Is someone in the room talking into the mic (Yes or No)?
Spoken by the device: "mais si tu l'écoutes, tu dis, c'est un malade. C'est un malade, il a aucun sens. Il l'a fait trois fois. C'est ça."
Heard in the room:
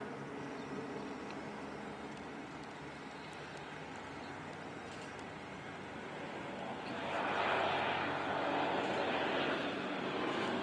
No